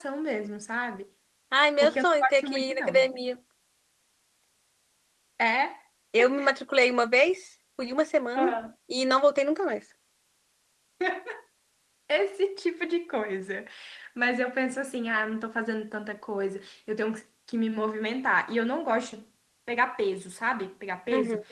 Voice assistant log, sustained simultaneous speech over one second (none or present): present